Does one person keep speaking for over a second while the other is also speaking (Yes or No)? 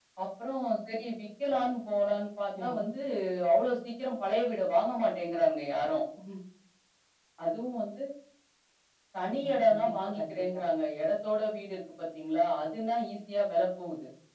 Yes